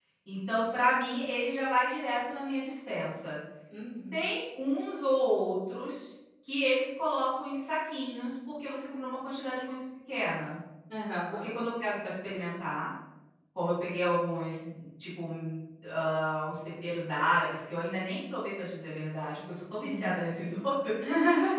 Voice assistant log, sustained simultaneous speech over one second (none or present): none